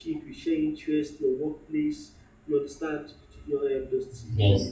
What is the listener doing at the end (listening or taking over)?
listening